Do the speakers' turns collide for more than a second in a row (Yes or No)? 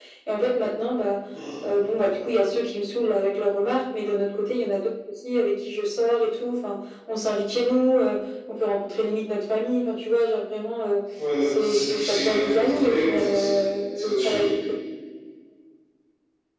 Yes